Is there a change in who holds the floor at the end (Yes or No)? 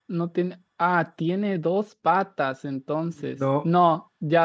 No